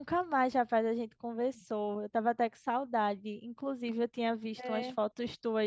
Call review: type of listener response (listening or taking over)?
listening